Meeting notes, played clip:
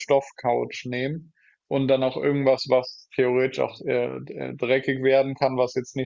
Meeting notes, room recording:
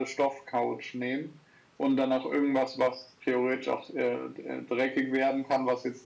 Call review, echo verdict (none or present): present